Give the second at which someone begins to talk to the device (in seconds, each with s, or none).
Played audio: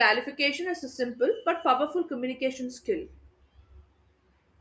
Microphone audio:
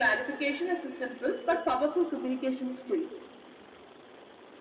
none